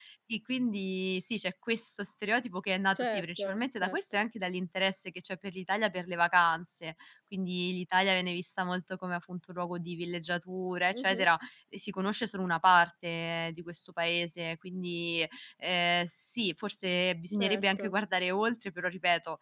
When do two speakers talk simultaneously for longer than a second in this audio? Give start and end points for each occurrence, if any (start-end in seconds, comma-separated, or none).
3.0-4.2